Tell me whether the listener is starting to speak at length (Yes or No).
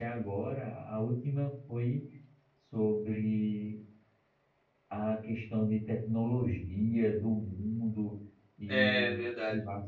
No